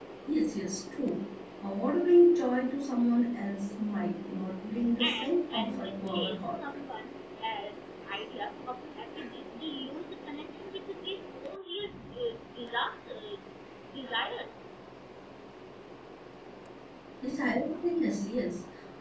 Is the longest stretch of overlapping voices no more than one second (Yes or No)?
No